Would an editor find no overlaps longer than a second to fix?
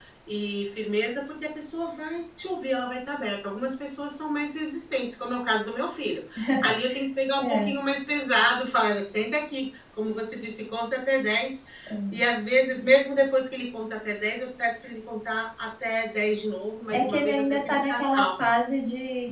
No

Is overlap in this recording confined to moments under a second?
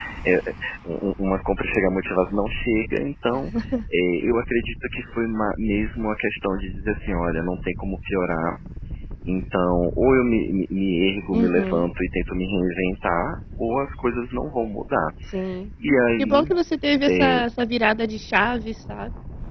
Yes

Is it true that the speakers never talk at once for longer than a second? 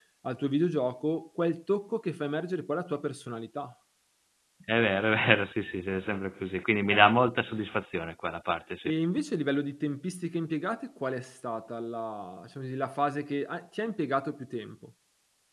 Yes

